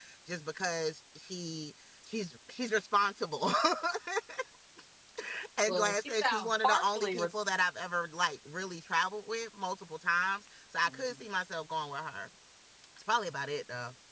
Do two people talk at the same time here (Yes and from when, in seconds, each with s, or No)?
Yes, from 5.7 s